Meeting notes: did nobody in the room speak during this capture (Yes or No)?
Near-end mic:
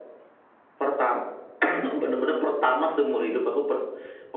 Yes